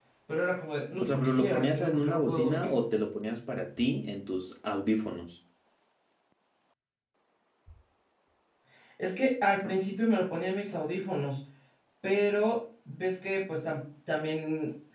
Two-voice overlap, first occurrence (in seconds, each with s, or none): 1.0 s